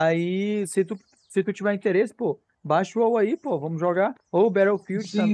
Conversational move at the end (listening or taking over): taking over